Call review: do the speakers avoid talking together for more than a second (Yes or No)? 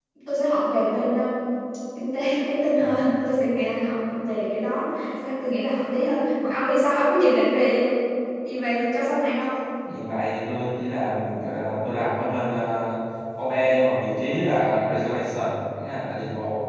Yes